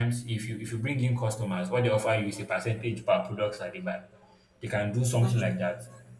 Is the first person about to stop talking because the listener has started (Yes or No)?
No